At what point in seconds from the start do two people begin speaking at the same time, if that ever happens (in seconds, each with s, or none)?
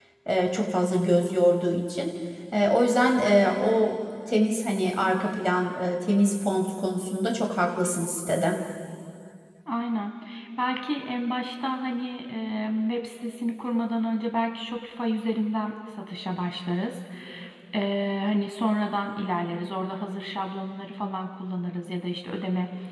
none